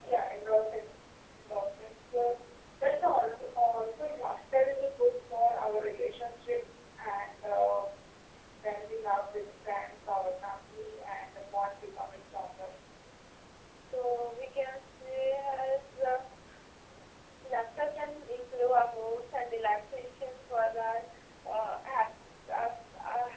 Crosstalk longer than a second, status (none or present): none